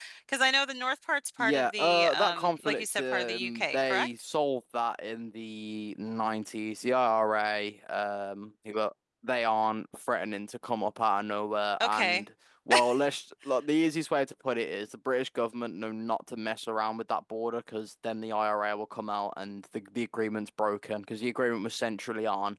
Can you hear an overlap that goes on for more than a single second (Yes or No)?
Yes